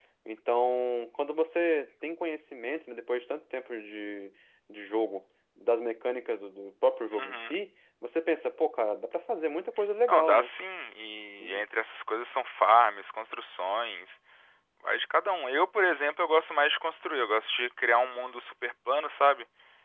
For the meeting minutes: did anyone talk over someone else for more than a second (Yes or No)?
No